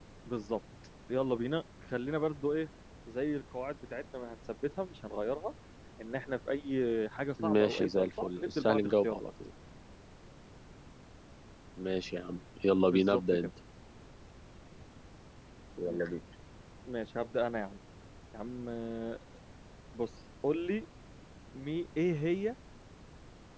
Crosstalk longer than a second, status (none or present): present